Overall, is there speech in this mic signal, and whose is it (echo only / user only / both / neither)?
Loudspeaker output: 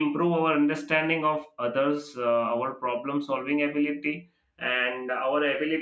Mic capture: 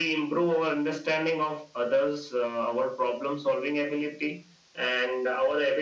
echo only